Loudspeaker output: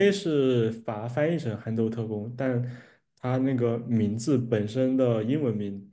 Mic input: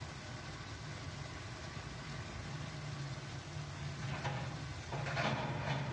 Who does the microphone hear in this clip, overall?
neither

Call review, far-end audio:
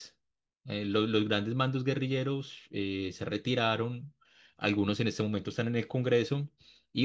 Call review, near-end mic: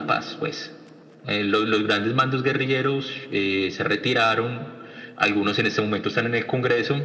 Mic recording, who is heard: echo only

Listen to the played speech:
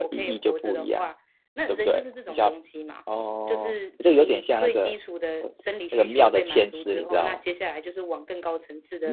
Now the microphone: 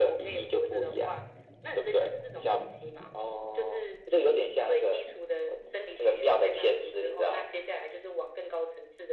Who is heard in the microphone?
echo only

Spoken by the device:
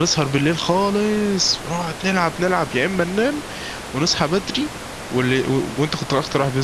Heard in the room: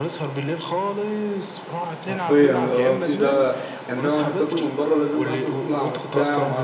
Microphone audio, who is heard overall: both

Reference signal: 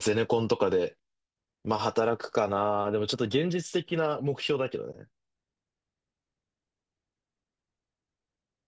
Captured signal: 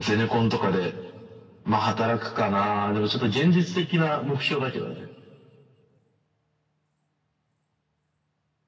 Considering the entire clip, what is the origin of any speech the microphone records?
echo only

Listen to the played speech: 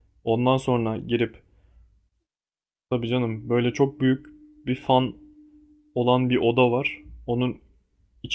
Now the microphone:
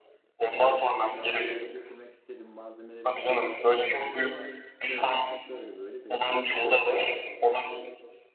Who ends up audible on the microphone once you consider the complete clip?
both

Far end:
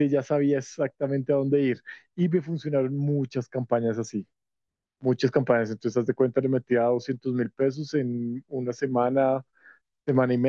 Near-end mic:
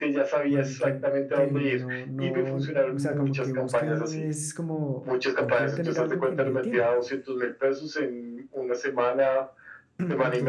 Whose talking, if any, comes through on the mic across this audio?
both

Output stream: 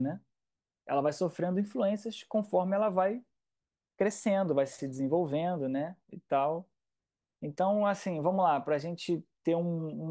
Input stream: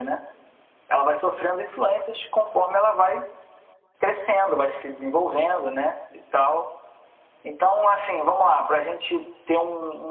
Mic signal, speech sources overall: echo only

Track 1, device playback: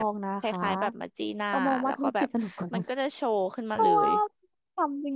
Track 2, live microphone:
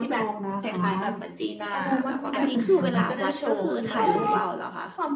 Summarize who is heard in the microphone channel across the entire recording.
both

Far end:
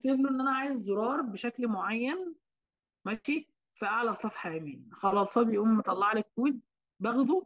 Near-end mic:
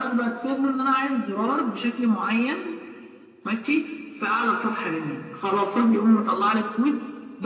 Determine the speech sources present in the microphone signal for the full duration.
echo only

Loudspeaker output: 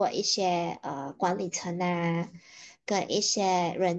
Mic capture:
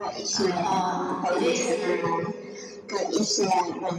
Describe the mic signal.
both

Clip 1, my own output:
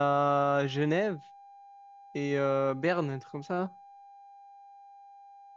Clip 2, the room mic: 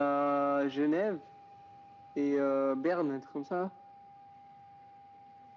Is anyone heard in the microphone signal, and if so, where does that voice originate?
echo only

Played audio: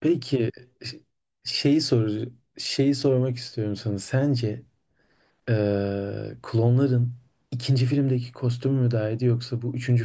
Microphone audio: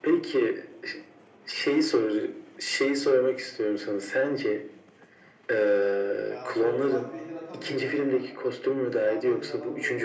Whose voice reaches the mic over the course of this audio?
both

